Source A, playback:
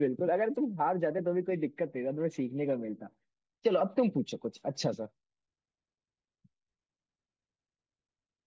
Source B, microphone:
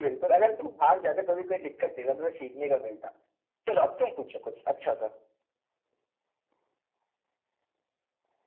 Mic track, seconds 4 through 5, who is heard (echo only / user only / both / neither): echo only